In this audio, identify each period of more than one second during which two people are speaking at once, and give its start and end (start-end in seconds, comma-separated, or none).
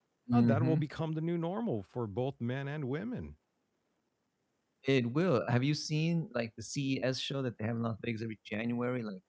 none